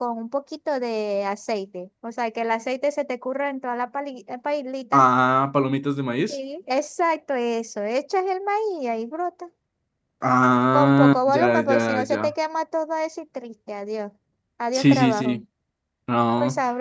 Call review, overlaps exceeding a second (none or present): present